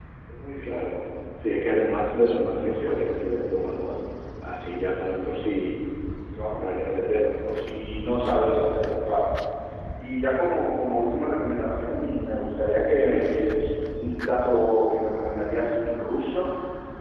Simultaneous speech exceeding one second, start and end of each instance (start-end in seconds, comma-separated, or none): none